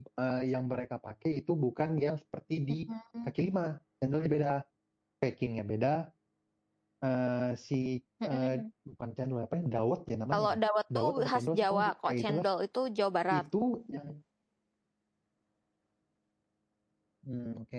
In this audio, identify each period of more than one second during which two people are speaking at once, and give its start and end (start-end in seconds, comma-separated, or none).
10.9-12.4